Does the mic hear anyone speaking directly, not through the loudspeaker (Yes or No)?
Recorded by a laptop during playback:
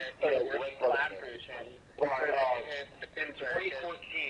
No